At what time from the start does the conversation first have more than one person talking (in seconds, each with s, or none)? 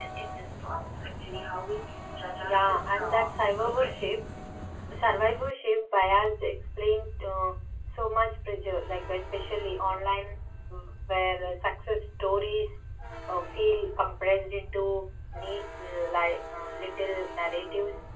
2.4 s